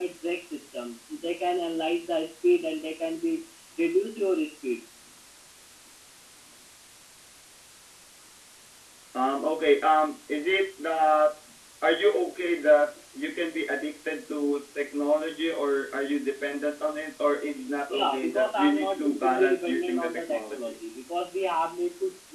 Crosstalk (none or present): present